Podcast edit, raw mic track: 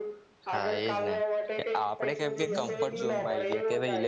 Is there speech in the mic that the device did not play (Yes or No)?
Yes